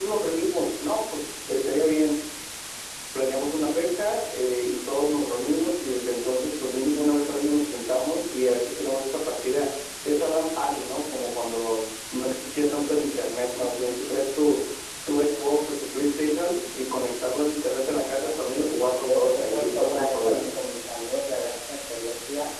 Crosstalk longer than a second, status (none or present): present